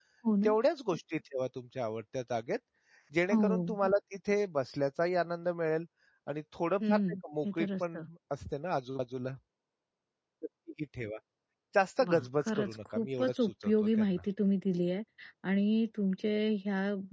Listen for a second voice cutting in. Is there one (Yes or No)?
Yes